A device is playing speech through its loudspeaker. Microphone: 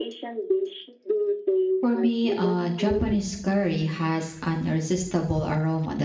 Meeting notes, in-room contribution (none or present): present